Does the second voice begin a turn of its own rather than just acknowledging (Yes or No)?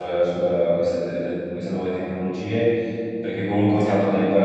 No